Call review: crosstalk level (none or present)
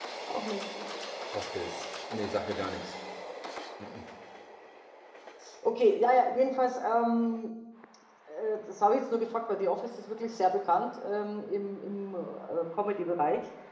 none